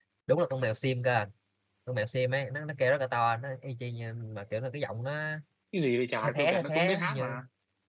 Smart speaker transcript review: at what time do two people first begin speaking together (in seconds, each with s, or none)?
6.2 s